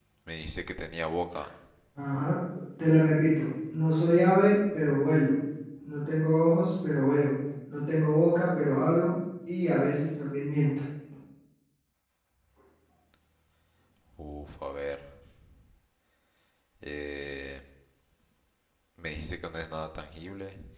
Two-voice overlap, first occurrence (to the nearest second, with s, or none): none